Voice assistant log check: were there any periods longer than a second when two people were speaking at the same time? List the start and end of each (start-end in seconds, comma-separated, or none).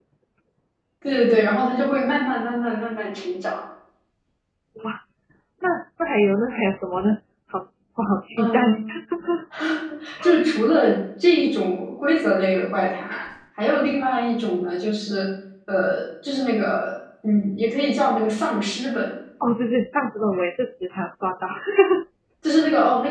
none